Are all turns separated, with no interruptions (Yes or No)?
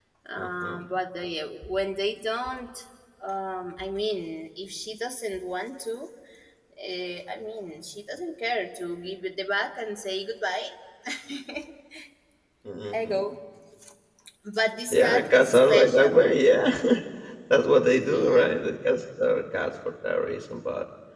No